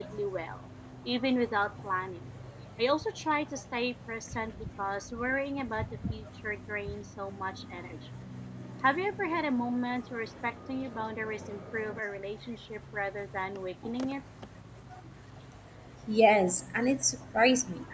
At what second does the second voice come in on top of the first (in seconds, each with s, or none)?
none